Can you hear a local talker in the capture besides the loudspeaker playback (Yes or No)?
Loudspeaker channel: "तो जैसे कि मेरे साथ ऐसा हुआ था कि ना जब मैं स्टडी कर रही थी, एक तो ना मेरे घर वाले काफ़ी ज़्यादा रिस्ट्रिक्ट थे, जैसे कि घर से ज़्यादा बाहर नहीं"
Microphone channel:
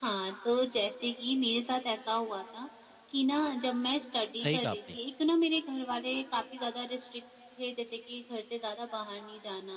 Yes